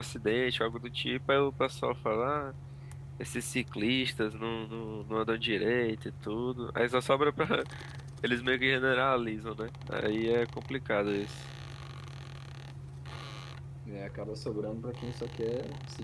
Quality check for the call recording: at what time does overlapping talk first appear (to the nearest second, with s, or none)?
none